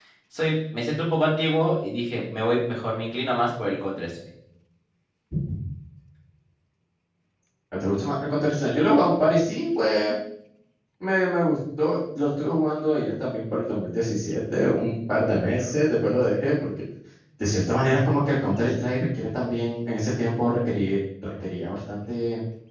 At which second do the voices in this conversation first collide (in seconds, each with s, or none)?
none